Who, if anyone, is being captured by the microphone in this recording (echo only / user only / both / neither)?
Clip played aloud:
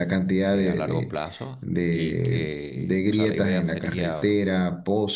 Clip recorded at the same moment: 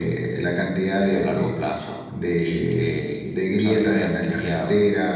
echo only